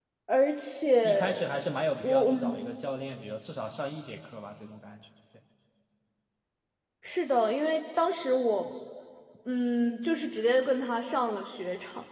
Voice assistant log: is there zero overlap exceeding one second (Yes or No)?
Yes